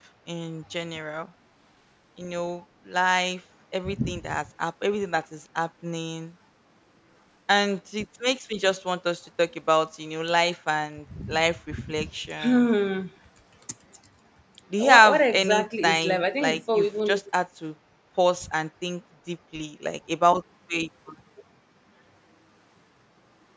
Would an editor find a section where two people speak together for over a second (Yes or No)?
Yes